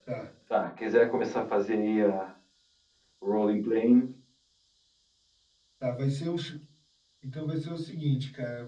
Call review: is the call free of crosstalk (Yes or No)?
Yes